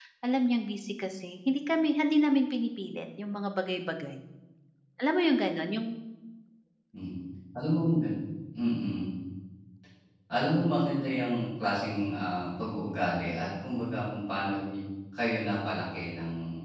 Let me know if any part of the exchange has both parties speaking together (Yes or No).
No